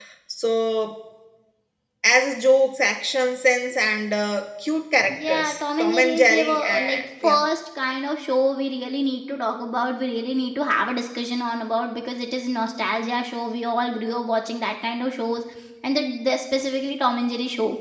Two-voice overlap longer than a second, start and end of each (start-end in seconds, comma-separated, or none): 5.1-7.4